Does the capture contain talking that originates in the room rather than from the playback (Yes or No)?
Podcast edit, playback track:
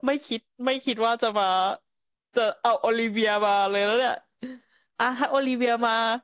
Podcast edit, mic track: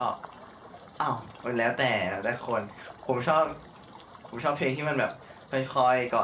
Yes